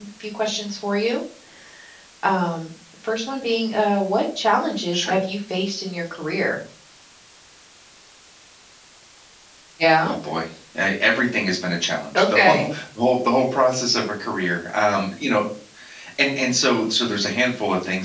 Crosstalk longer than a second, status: none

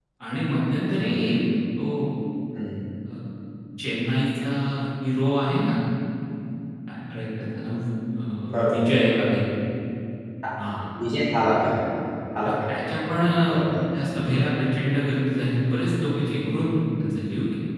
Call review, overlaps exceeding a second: none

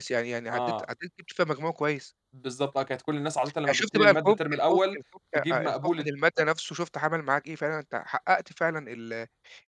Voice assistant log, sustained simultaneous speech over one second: present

